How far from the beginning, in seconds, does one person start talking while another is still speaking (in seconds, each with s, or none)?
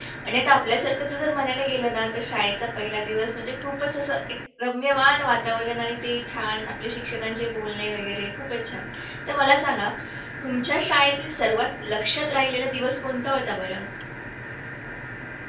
none